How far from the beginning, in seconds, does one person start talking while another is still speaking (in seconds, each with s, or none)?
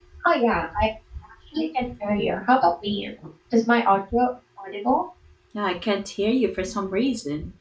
none